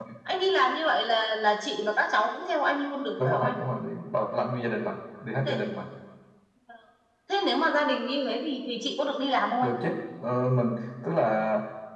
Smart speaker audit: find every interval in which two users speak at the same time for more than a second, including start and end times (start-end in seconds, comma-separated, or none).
none